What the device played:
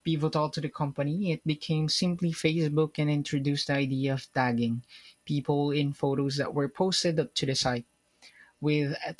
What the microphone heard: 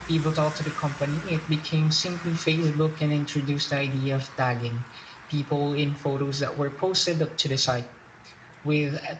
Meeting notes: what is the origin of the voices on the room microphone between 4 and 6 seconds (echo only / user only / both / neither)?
echo only